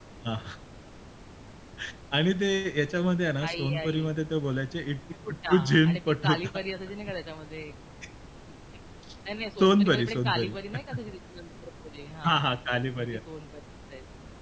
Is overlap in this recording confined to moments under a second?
No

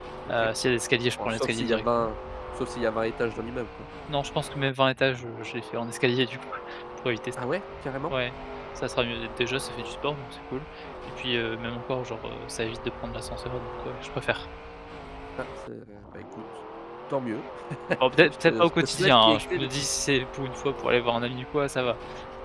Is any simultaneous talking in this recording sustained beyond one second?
Yes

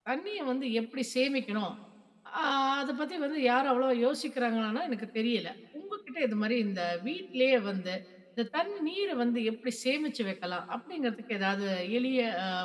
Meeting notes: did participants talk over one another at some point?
No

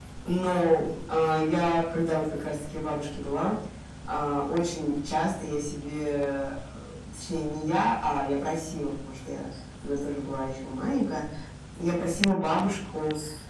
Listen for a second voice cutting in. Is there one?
No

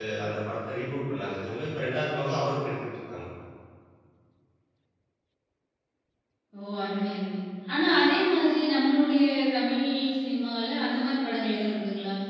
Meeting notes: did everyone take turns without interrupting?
Yes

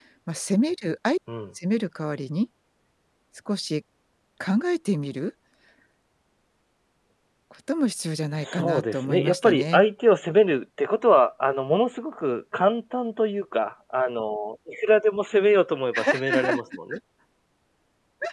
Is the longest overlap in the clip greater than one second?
Yes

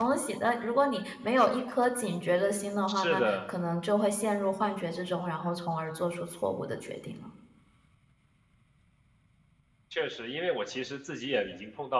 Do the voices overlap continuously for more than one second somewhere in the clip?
No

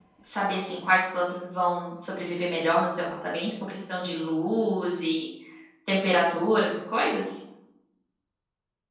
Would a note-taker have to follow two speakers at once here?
No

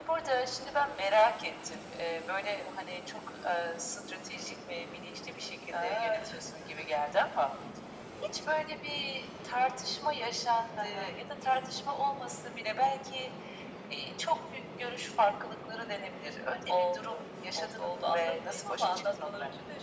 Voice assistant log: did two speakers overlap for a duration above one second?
Yes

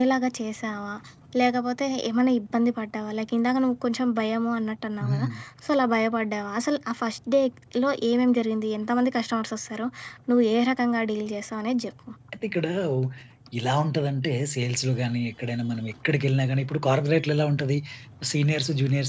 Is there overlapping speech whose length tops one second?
No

